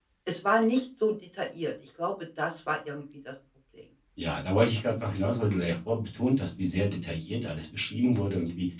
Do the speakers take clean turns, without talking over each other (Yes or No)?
Yes